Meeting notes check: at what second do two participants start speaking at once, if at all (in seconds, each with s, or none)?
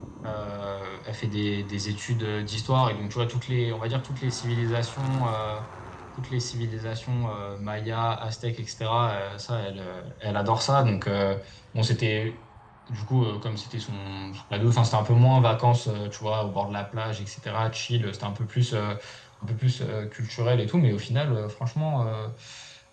none